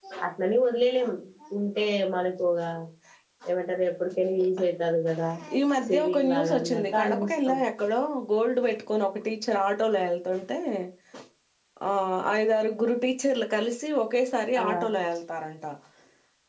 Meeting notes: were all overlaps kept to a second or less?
No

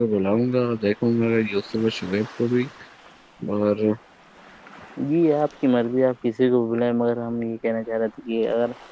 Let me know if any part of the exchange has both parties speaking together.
No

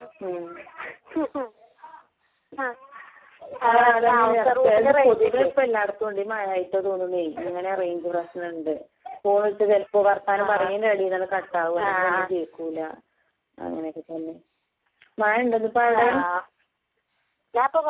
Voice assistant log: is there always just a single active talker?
No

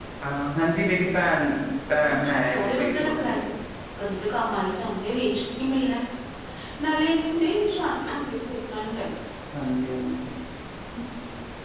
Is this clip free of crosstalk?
No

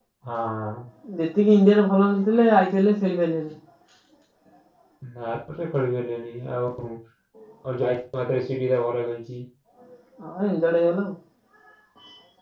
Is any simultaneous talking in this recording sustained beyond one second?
No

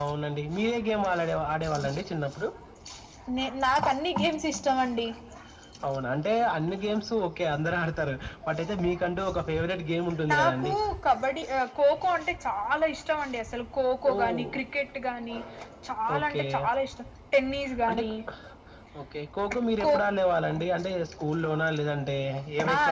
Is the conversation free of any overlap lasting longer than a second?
Yes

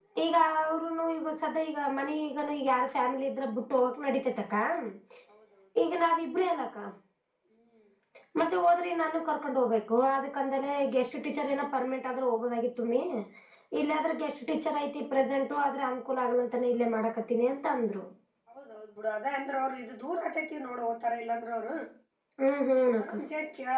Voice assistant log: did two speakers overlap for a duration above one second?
No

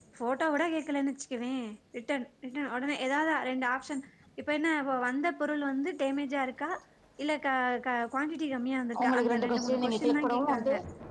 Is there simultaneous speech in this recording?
Yes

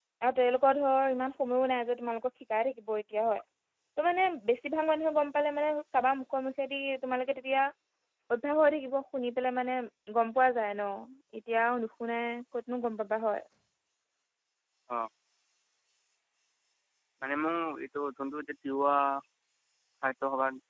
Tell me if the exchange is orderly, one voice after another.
Yes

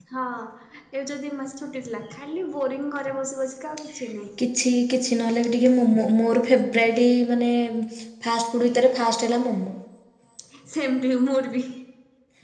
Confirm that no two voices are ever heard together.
Yes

